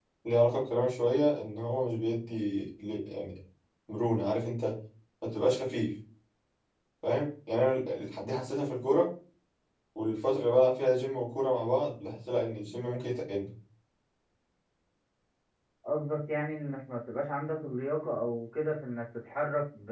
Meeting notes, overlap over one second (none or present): none